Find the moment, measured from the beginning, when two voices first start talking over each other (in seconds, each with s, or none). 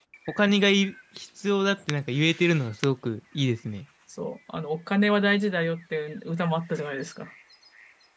none